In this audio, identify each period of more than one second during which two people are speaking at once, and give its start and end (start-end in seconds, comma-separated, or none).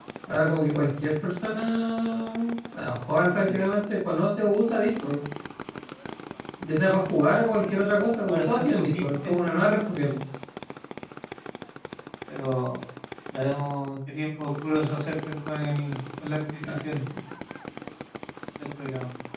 8.3-9.8